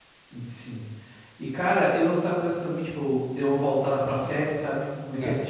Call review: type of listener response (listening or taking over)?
listening